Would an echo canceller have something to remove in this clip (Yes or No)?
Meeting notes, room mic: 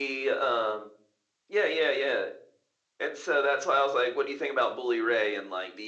Yes